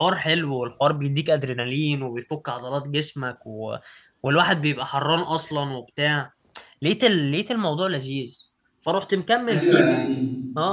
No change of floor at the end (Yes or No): No